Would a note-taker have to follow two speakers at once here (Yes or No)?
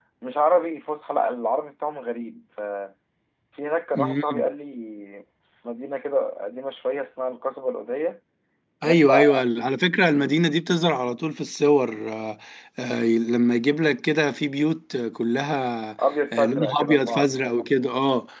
Yes